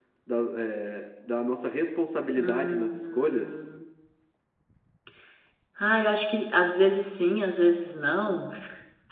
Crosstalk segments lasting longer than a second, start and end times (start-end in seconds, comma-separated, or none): 2.4-3.6